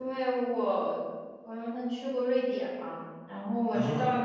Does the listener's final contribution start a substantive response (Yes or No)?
No